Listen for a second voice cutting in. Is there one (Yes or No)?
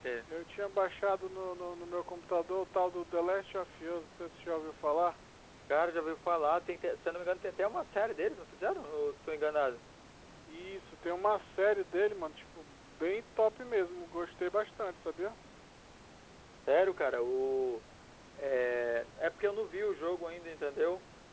No